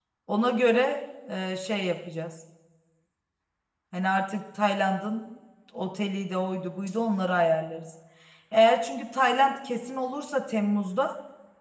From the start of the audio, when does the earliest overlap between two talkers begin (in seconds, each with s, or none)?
none